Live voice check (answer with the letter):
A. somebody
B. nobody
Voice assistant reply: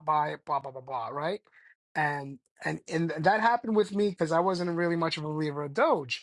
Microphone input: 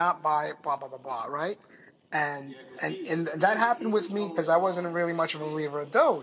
A